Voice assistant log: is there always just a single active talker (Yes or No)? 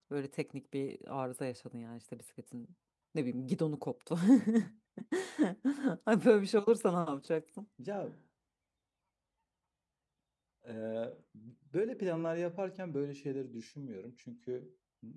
Yes